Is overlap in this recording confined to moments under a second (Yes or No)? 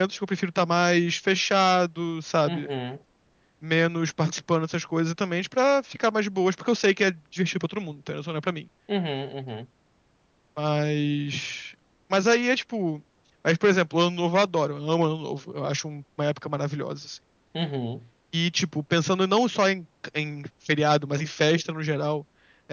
Yes